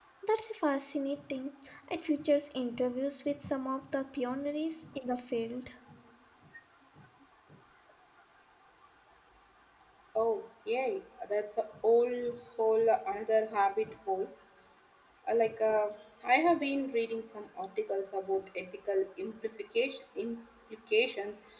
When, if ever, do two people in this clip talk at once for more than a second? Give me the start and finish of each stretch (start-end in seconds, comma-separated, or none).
none